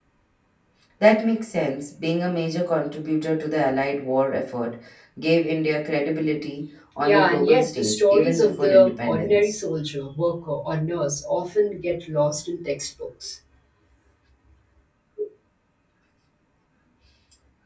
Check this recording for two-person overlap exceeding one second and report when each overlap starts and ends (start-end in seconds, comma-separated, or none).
7.0-9.6